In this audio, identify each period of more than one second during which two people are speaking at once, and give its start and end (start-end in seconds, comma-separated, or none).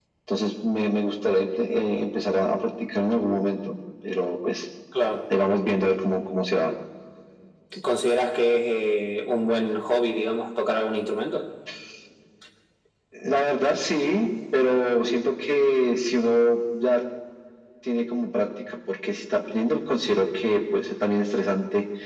none